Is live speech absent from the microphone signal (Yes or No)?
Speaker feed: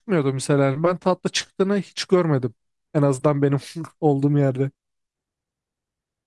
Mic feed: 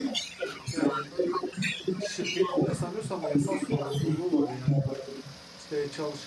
No